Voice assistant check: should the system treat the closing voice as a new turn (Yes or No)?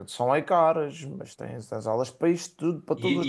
Yes